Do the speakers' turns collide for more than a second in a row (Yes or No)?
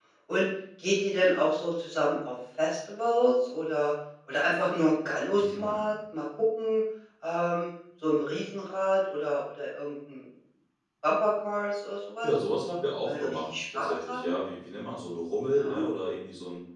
Yes